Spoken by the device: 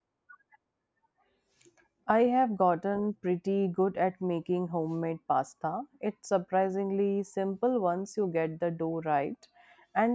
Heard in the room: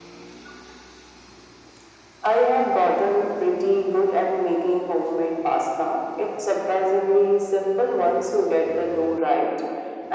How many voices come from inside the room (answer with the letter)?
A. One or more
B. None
B